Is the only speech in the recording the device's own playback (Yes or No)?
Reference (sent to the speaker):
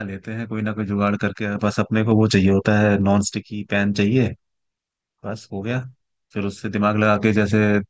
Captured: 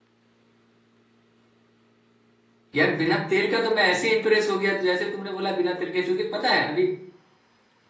No